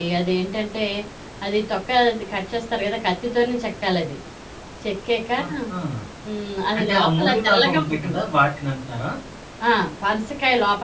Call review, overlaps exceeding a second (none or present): present